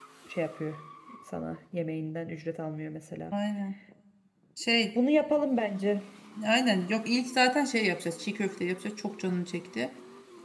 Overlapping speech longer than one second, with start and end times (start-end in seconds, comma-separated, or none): none